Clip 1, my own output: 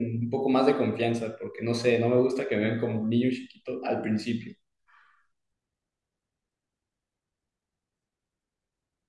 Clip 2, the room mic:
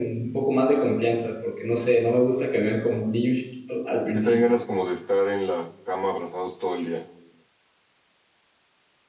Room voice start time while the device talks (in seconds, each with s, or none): 4.1 s